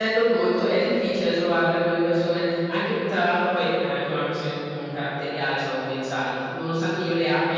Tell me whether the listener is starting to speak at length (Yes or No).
No